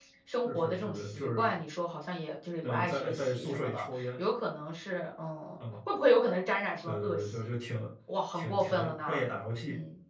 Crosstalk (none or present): present